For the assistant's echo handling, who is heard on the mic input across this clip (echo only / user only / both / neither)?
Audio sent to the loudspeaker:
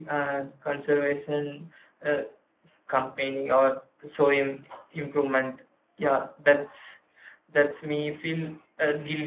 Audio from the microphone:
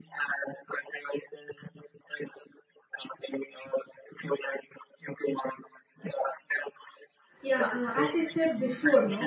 both